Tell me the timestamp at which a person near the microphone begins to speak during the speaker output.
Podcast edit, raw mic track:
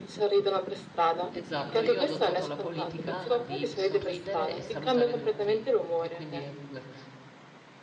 1 s

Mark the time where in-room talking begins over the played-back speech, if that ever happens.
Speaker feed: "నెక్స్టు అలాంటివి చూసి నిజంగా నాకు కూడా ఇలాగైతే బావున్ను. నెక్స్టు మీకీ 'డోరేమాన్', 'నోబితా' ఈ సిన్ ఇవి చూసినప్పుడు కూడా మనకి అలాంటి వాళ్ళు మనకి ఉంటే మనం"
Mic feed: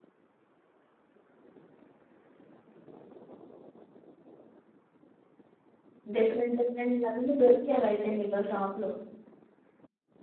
6 s

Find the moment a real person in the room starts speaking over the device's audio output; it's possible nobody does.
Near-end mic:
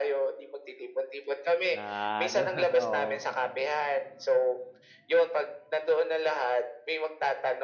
2 s

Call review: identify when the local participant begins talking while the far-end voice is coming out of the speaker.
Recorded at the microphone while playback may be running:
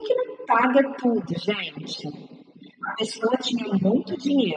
none

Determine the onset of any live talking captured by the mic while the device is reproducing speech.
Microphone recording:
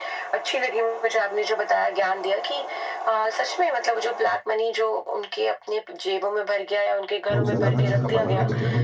7 s

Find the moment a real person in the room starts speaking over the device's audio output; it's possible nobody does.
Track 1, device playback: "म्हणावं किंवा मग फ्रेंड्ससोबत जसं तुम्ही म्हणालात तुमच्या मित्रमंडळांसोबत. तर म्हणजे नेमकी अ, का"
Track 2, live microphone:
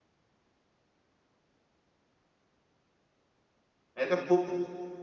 4 s

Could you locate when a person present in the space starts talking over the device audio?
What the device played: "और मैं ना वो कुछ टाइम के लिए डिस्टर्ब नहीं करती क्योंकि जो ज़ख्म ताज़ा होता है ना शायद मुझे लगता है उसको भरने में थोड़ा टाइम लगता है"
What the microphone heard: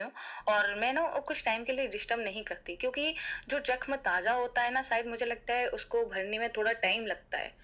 none

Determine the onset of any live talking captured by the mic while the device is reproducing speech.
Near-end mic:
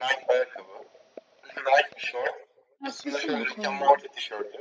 3 s

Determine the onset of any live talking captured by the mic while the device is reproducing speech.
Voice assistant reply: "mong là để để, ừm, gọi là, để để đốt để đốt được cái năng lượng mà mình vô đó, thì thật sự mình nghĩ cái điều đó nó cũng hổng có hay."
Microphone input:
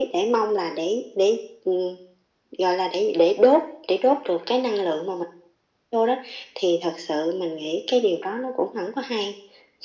none

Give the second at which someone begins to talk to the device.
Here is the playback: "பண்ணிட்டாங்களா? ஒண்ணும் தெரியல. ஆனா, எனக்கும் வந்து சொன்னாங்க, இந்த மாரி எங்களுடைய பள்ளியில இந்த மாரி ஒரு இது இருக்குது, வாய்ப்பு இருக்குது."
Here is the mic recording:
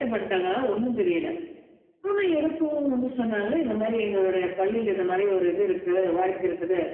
none

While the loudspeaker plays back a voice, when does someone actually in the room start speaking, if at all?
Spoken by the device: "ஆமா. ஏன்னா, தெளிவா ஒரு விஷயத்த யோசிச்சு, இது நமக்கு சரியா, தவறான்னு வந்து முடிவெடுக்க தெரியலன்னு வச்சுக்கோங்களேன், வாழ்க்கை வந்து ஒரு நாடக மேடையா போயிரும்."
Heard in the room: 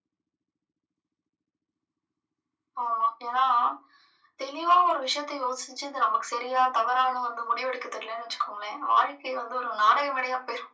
none

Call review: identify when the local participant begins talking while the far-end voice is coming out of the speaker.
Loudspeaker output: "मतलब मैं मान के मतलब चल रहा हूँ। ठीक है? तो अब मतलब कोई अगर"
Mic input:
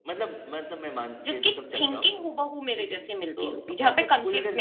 1 s

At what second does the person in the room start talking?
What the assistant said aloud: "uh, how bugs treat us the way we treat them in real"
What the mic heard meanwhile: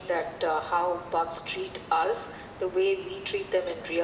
none

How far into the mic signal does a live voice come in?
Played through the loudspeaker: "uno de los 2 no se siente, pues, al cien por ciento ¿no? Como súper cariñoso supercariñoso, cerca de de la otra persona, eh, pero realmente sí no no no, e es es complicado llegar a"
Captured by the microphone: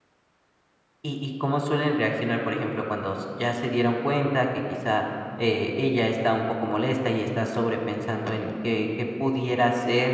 1 s

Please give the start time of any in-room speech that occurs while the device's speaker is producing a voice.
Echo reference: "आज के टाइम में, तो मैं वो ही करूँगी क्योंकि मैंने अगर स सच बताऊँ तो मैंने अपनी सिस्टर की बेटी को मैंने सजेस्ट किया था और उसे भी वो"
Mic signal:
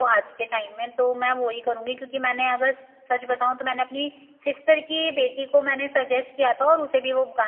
none

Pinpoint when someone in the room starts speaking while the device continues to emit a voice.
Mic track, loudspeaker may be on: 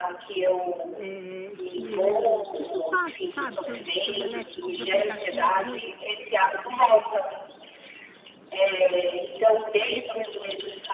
1 s

